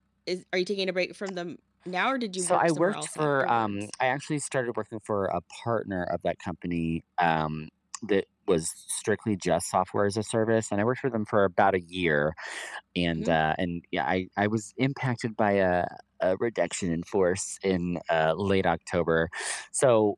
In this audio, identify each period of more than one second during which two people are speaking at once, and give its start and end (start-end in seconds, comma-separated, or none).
2.4-3.9